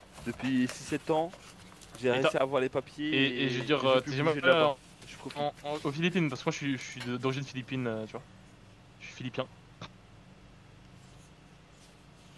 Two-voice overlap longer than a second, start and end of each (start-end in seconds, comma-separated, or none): 3.1-4.7